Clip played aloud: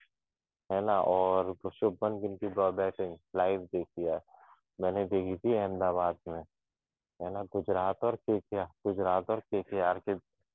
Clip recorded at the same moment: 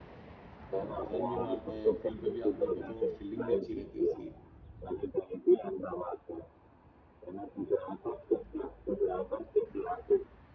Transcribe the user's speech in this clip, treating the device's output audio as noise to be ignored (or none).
और रन भी मारता है फील्ड पे भी आप देखो तो फील्डिंग भी अच्छी रहती है उसकी